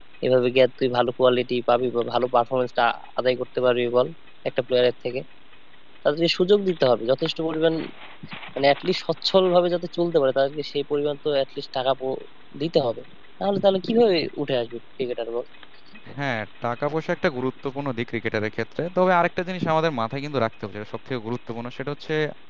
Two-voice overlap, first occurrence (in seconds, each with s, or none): none